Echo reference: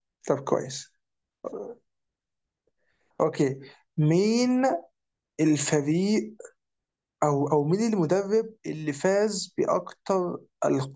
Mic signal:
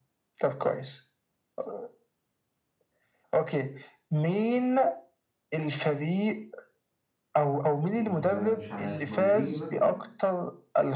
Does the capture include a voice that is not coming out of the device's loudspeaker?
Yes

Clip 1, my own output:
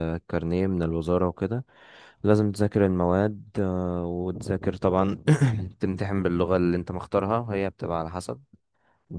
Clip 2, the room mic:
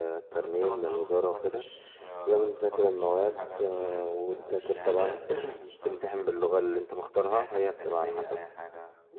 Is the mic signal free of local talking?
No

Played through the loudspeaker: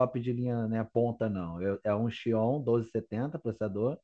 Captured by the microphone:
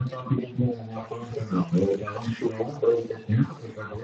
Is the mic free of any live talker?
Yes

